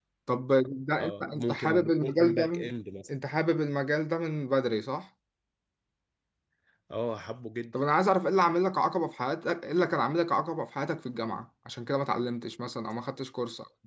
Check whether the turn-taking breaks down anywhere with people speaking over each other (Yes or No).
Yes